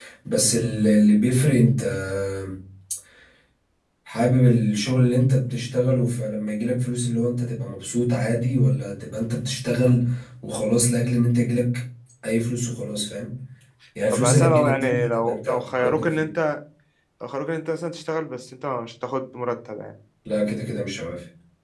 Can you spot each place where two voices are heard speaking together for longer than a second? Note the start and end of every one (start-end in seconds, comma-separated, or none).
14.1-16.3